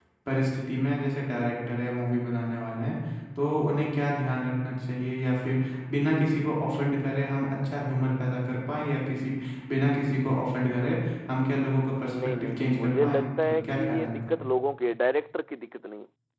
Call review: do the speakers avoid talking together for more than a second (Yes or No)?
No